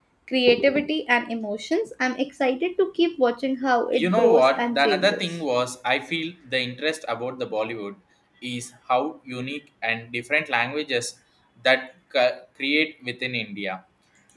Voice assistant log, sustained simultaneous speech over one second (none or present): present